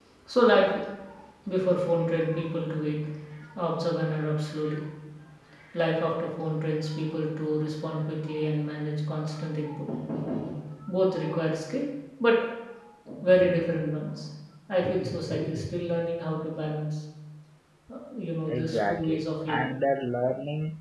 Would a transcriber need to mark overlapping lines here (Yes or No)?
Yes